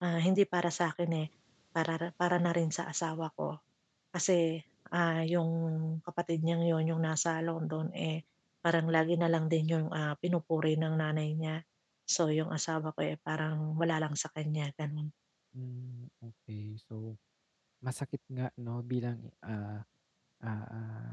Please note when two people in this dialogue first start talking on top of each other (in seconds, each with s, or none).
none